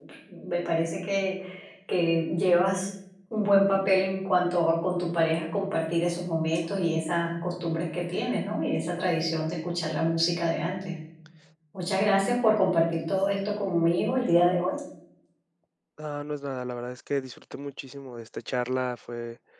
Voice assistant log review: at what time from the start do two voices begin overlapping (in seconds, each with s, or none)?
none